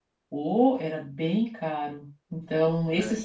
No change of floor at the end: Yes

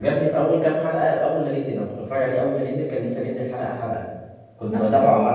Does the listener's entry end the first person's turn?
No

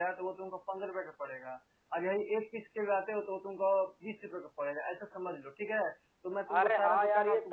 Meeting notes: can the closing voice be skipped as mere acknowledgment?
No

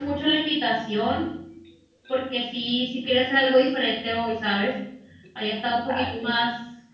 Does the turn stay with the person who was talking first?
Yes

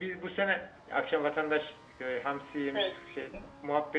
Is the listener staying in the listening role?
Yes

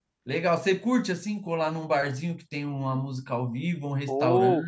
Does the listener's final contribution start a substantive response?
Yes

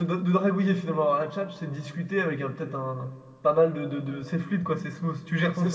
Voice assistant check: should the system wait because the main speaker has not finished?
No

